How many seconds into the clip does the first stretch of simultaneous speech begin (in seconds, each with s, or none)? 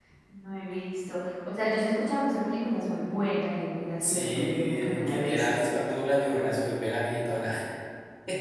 4.0 s